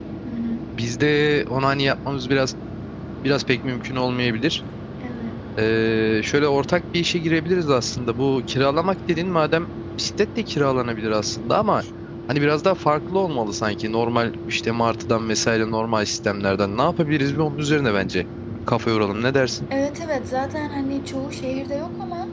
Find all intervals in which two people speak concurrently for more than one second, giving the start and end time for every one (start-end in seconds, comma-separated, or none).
none